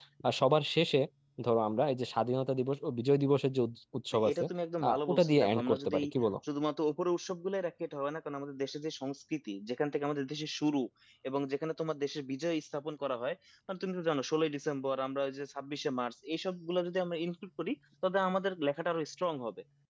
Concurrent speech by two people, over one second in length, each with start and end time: 4.9-6.1

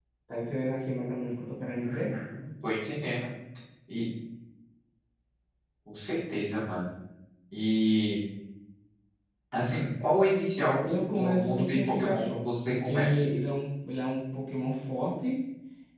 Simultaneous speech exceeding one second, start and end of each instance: 10.8-13.2

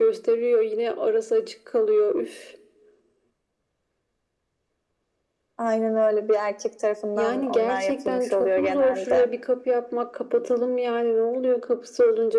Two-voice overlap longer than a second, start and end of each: 7.2-9.3

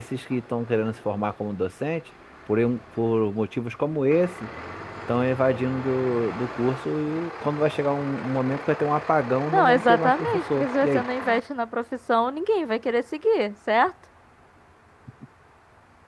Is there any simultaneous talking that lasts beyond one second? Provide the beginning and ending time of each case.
9.5-11.0

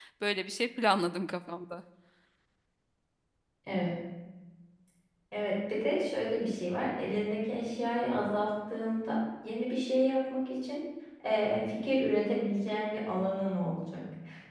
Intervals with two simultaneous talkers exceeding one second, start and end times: none

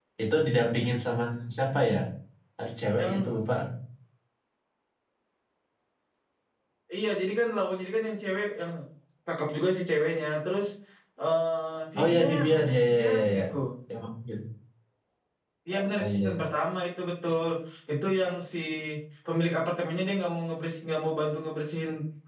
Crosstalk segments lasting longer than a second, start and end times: 12.0-13.5

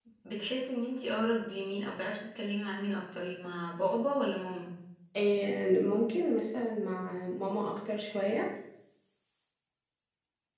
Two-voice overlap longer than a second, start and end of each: none

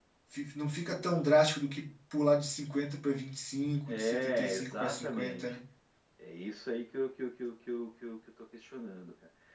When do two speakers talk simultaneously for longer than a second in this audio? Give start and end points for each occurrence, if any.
3.9-5.6

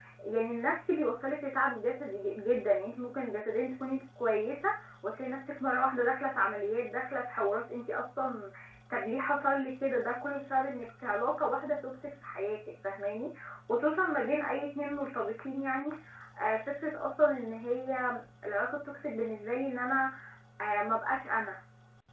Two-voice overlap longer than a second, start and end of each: none

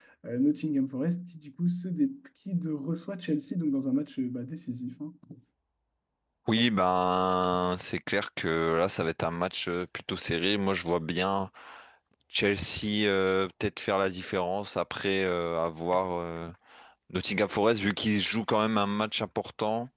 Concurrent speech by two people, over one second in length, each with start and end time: none

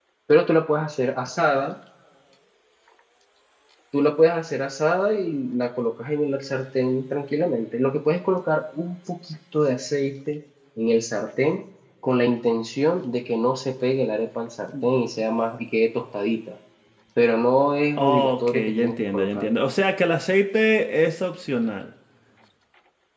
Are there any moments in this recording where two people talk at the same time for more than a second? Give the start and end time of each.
18.0-19.5

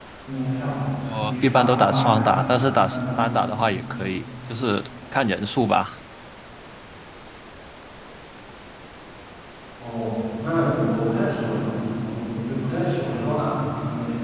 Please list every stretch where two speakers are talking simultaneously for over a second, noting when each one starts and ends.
1.1-3.2

